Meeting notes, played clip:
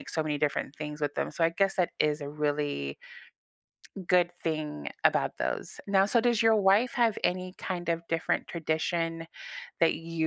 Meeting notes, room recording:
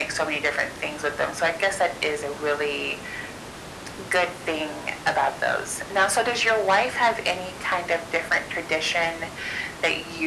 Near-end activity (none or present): none